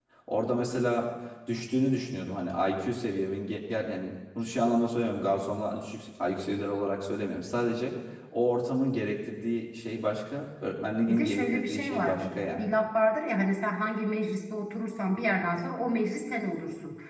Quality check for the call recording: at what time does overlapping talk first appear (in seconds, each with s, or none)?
11.1 s